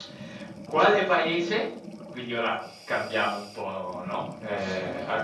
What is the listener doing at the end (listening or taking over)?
listening